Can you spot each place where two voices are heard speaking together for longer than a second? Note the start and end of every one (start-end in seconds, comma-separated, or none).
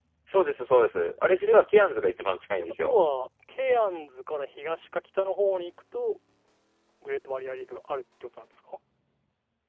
none